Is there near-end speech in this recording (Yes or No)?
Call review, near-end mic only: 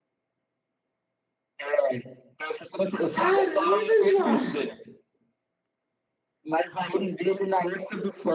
Yes